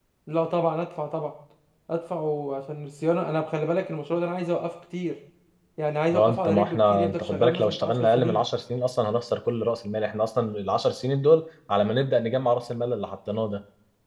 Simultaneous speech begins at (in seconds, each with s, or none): 6.1 s